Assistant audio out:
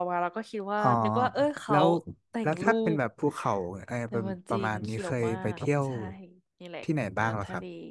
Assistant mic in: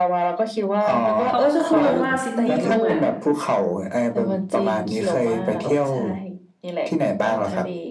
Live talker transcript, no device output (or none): เขาก็ชอบพูดกันว่าซิดนีย์มันเหมือน